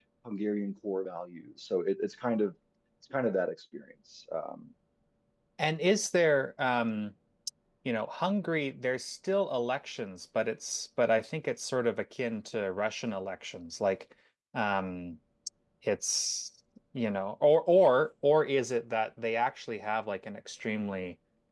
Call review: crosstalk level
none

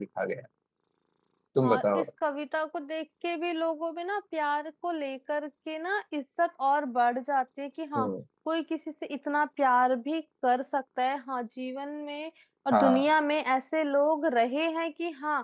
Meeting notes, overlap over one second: none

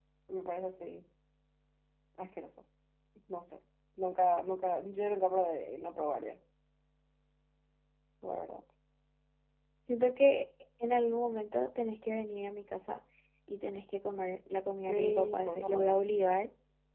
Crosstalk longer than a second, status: present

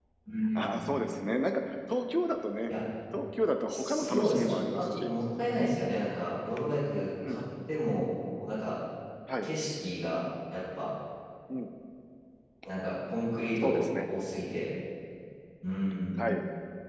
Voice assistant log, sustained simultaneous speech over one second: present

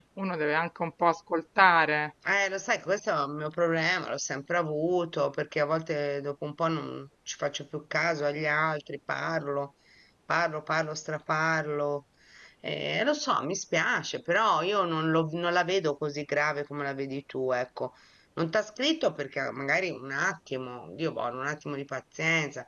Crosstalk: none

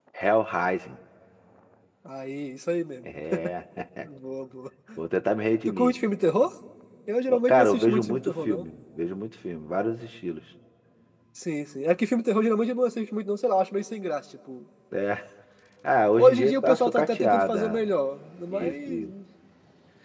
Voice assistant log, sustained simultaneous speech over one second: present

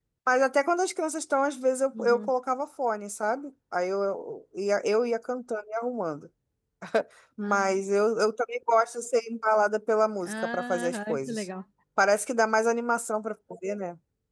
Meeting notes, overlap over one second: present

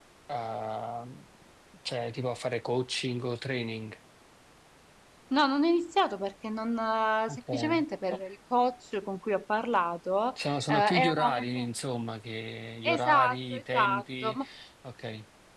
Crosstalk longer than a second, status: present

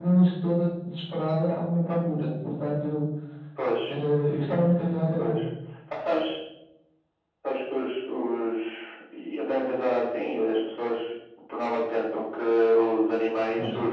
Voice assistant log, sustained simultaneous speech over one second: none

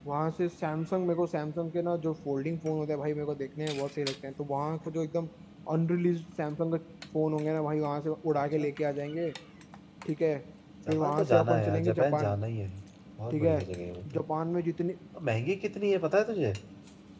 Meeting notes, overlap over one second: present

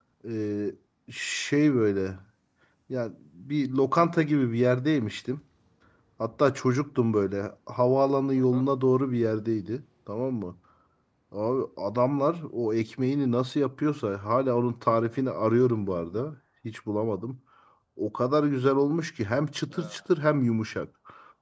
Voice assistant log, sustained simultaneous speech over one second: none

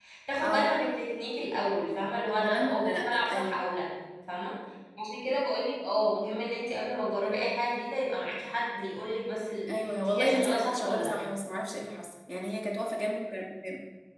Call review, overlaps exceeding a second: present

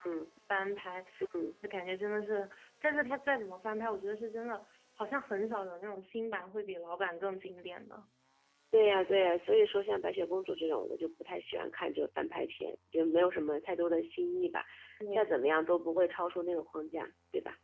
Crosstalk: none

